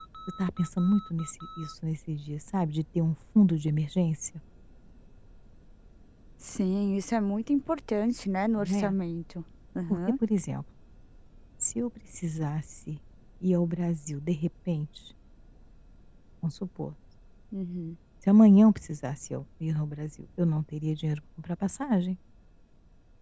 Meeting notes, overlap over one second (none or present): none